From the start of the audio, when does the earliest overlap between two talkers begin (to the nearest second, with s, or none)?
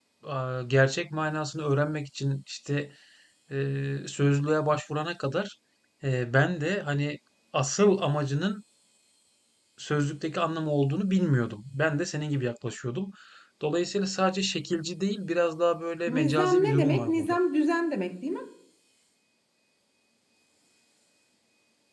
16 s